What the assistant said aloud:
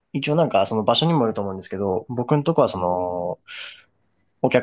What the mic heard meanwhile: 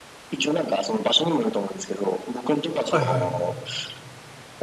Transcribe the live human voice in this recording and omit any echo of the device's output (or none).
はいは